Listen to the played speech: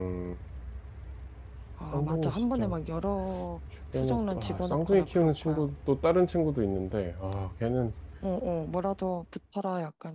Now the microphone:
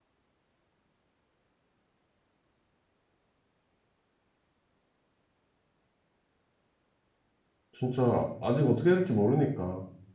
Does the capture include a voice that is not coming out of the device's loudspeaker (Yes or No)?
Yes